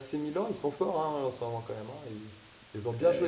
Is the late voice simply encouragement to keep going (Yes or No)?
No